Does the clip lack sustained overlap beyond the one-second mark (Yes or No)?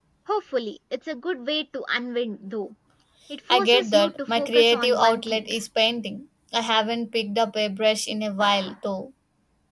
No